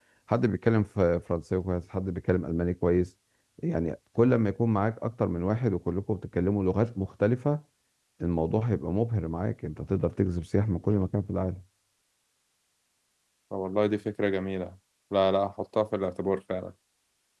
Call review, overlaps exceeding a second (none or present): none